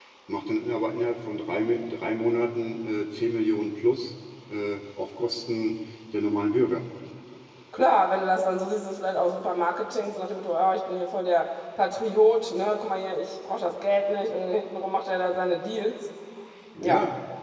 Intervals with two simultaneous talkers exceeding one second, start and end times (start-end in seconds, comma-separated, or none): none